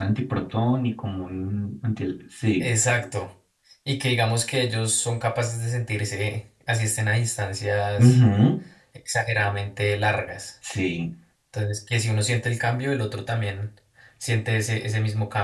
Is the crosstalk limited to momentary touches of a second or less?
Yes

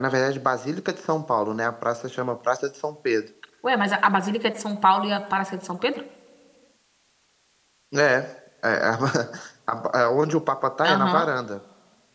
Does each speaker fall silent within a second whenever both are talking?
Yes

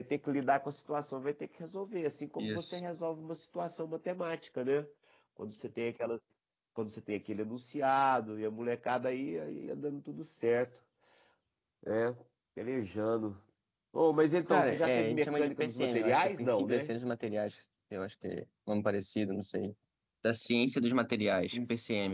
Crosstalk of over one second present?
Yes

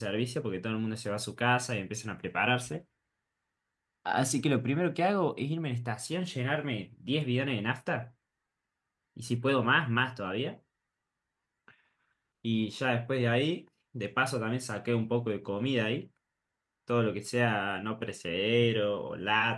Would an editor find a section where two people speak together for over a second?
No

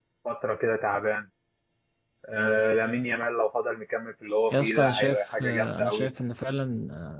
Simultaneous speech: Yes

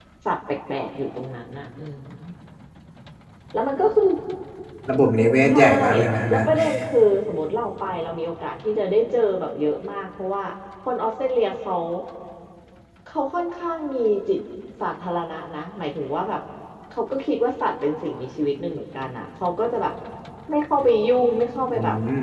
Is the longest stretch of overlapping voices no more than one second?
Yes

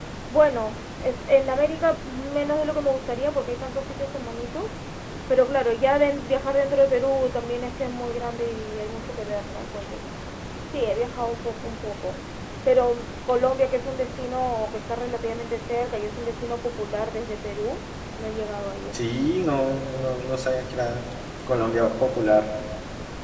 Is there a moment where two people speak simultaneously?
No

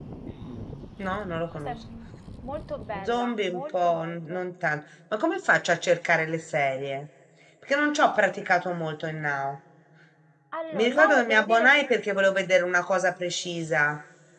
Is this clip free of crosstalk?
No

